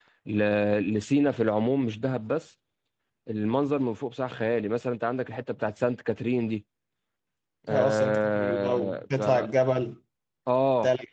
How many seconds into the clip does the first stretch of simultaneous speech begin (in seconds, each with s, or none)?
7.7 s